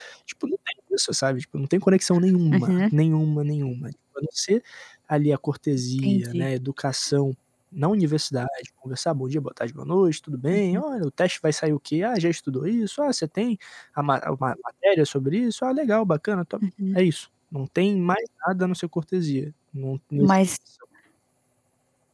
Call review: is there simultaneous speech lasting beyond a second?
No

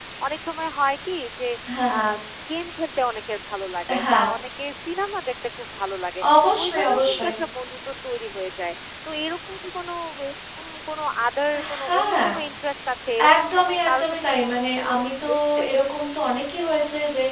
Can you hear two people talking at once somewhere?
Yes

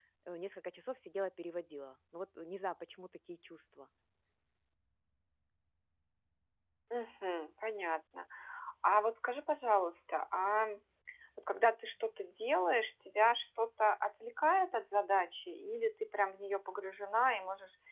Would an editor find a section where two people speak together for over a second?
No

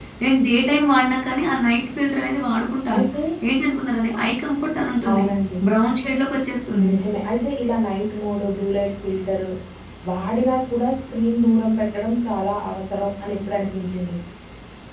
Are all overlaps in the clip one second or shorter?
Yes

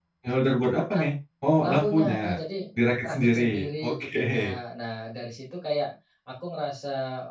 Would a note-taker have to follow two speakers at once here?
Yes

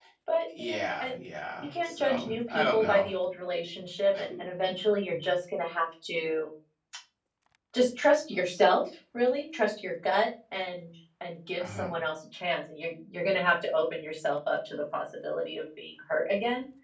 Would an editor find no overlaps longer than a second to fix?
No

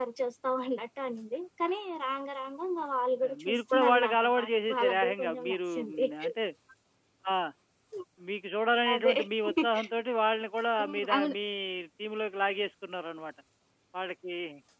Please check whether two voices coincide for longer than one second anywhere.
Yes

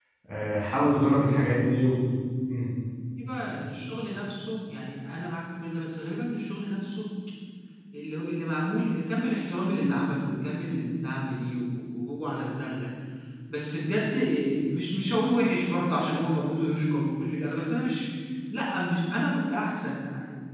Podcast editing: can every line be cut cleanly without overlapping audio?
Yes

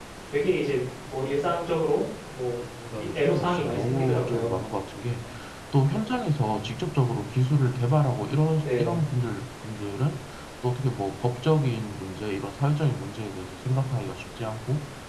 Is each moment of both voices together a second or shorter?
No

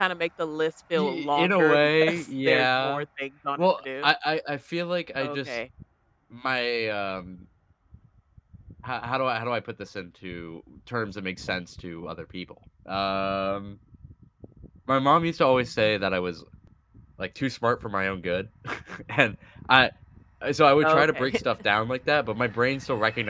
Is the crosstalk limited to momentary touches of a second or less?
No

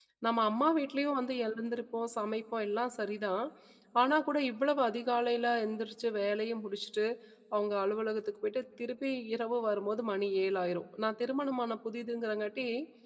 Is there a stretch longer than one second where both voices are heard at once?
No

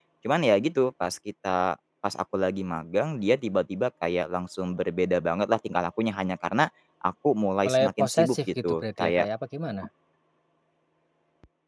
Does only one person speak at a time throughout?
No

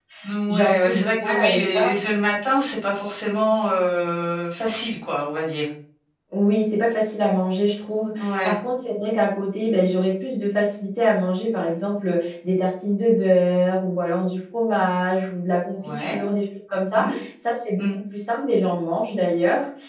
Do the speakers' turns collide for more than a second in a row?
Yes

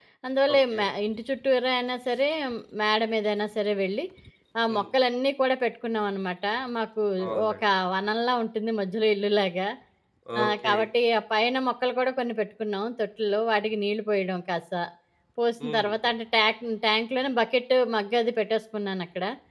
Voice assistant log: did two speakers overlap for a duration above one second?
No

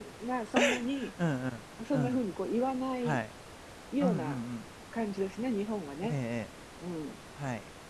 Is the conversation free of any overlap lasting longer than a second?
Yes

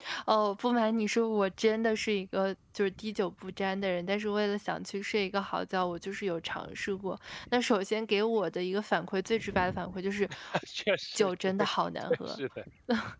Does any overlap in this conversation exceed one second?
No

